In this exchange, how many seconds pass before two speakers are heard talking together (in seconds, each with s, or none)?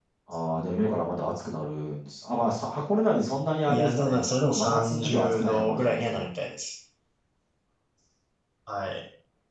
3.6 s